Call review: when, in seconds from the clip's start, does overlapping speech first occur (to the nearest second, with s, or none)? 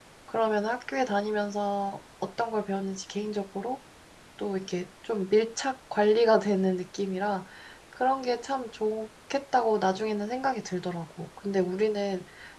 none